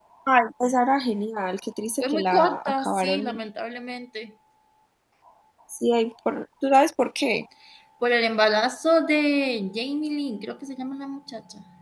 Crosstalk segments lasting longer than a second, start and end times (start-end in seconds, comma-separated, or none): 2.0-3.4